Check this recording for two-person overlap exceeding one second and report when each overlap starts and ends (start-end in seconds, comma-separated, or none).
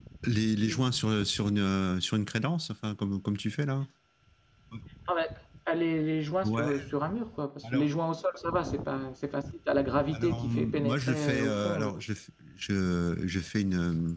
10.1-11.9